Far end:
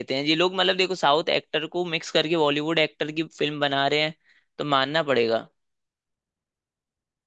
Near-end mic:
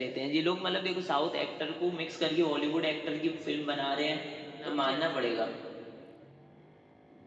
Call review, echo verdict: present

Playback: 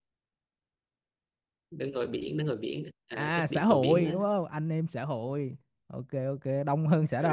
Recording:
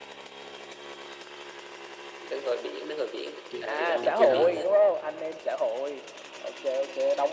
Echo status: present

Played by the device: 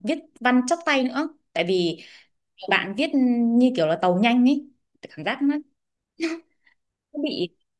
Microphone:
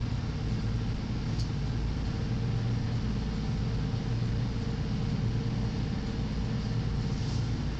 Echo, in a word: none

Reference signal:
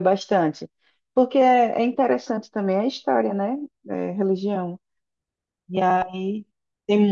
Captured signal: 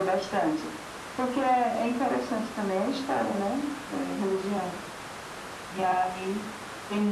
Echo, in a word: present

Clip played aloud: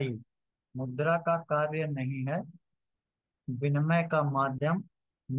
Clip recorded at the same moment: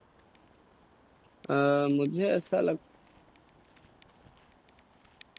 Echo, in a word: none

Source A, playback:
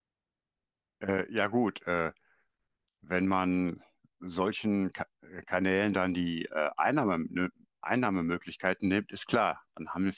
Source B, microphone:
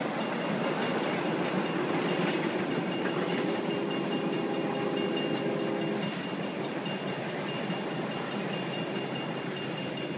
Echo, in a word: none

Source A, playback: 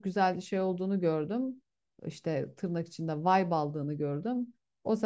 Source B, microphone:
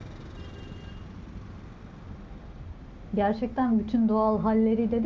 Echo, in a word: none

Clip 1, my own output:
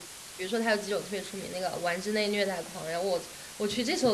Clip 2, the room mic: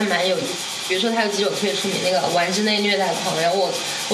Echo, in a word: present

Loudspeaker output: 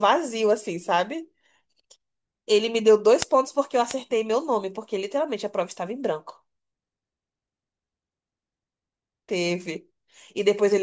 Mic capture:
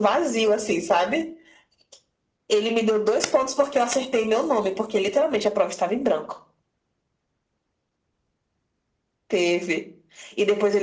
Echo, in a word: present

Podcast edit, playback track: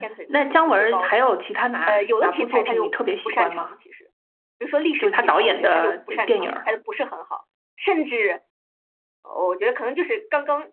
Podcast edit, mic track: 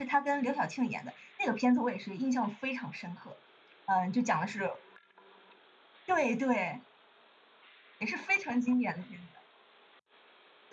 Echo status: none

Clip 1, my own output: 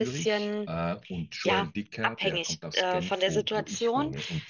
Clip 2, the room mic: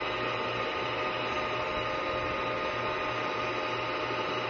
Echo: none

